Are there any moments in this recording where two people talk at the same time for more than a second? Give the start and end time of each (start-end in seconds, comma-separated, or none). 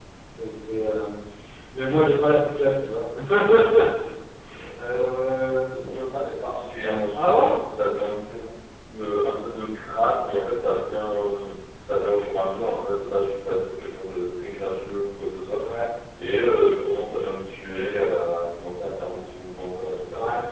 none